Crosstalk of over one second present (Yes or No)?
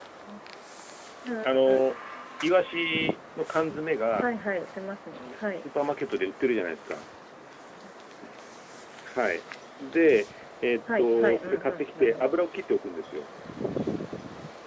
Yes